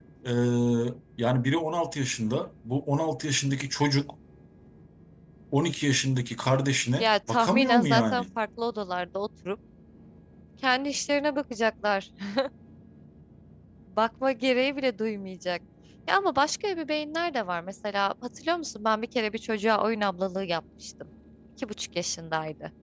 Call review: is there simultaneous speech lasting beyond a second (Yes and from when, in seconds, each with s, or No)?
Yes, from 7.0 s